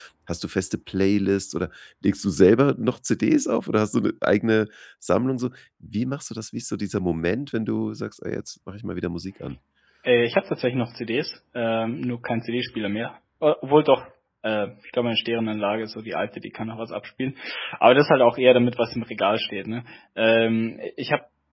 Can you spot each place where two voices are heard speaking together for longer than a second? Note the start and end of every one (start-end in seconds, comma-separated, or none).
none